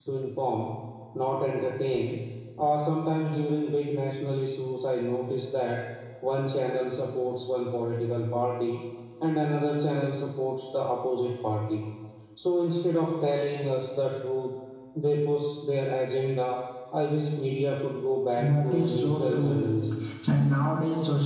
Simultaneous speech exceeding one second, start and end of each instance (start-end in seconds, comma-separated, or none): 18.4-19.6